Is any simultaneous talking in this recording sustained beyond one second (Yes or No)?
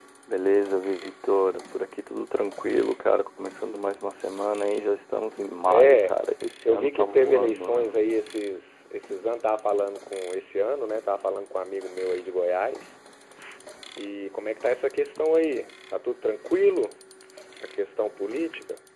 Yes